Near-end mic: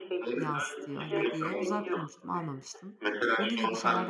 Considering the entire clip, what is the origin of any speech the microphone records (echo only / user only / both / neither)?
both